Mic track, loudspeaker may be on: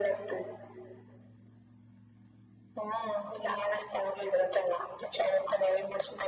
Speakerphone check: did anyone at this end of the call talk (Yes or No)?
No